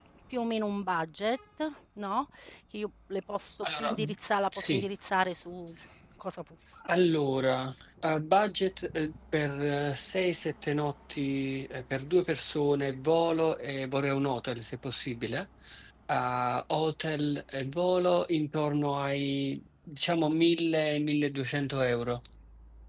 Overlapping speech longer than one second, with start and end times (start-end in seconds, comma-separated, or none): none